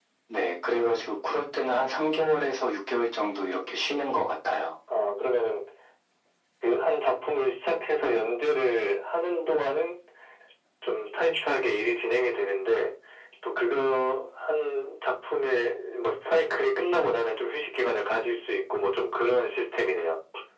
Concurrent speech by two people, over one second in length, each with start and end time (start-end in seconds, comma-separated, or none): none